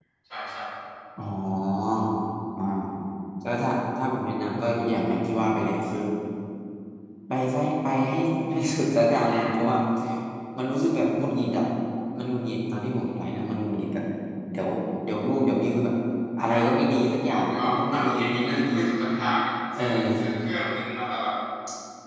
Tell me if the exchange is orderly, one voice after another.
No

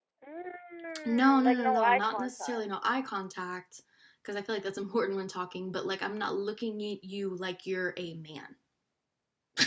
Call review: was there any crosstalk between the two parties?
Yes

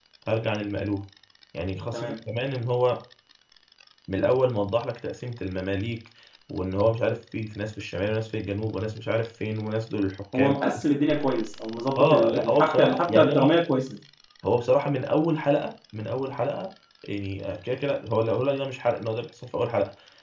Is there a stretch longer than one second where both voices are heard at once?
Yes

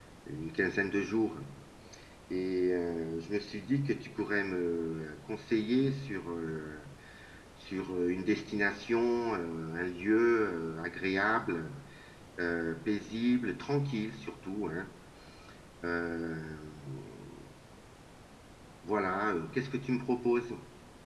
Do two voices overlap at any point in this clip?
No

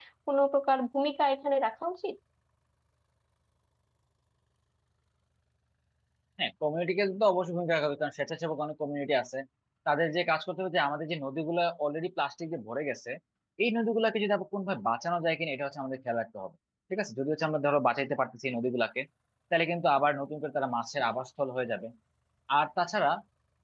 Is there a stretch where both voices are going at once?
No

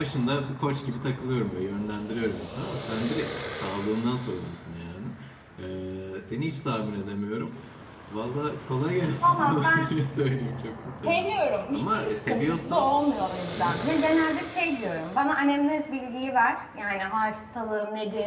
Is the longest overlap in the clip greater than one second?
Yes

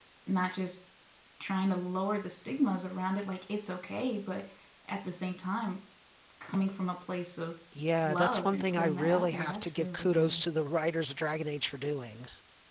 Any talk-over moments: Yes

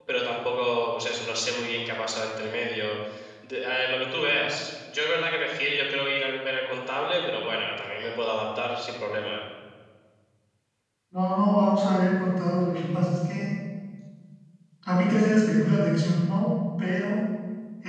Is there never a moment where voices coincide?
Yes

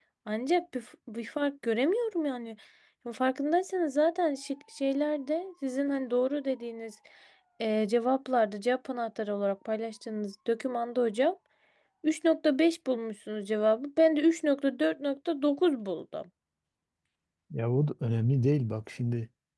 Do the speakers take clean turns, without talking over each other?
Yes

